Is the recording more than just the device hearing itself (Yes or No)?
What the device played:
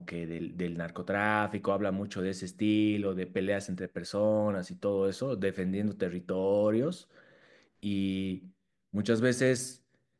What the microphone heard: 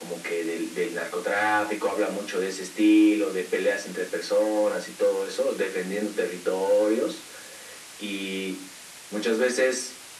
No